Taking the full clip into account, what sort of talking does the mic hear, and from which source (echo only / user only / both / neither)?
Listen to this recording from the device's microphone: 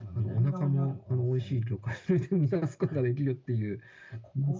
both